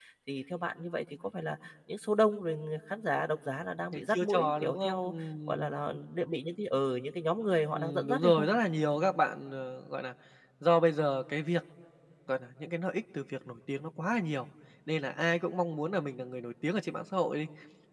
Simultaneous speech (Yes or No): Yes